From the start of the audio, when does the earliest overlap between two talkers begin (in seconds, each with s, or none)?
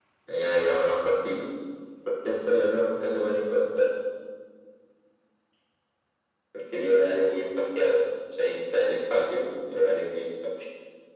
none